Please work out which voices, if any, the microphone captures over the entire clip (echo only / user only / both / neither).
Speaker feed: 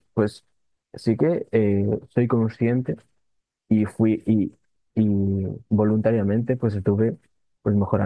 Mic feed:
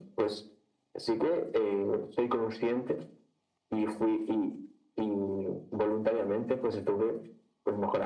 echo only